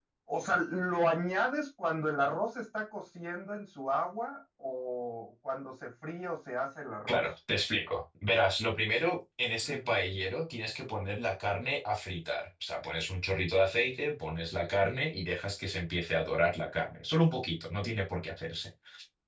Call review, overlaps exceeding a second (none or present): none